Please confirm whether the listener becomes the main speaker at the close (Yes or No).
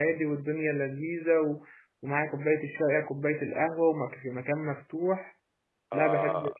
Yes